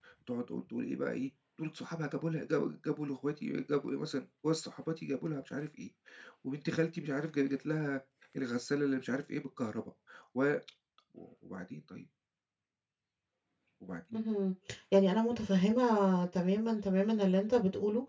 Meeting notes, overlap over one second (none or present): none